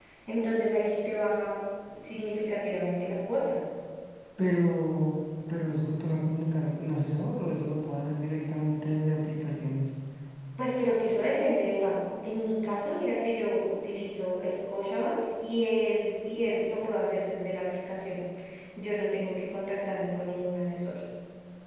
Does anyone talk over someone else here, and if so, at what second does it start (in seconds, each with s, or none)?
none